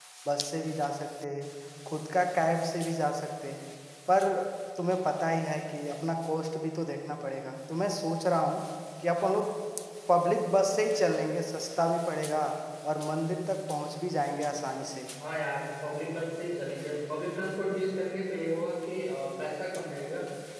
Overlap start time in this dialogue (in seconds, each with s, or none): none